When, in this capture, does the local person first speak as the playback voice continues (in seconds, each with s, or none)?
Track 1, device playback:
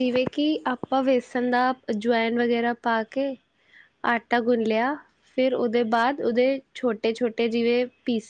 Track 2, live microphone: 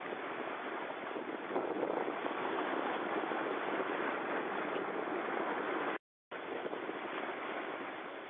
none